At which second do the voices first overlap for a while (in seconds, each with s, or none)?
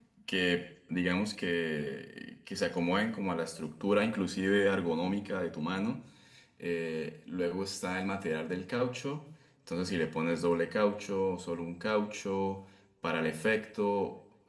none